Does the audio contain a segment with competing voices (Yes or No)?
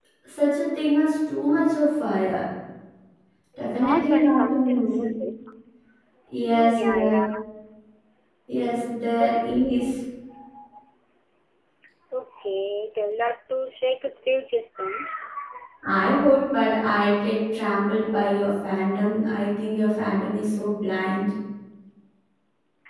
Yes